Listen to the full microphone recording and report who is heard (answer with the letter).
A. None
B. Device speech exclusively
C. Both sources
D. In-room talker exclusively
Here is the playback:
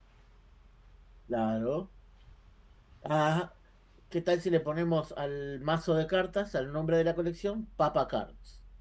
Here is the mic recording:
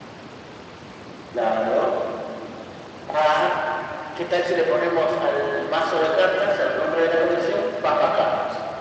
B